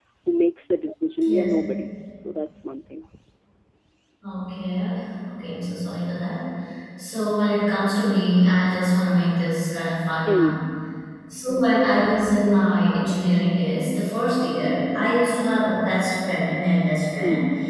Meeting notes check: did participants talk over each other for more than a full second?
No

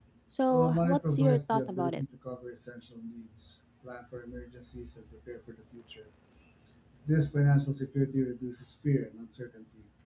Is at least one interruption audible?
Yes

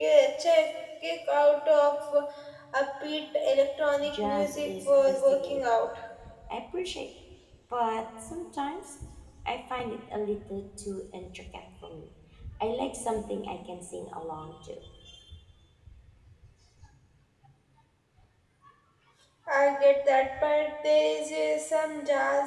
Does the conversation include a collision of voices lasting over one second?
Yes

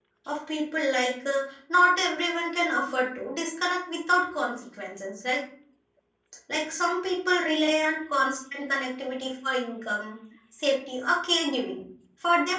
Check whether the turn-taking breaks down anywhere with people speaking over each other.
No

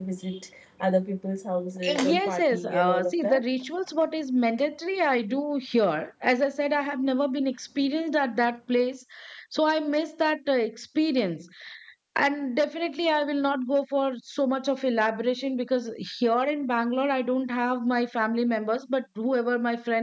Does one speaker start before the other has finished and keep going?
Yes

